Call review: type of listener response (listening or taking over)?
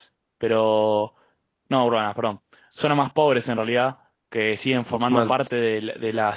listening